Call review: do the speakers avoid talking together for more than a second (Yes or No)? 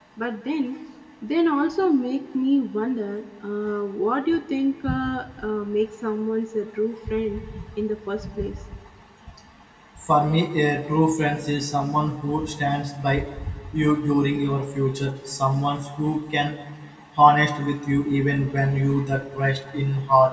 Yes